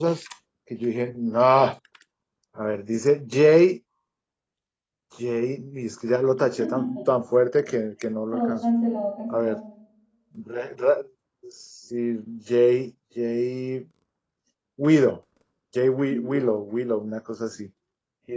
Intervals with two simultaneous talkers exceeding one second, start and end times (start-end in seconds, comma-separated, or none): none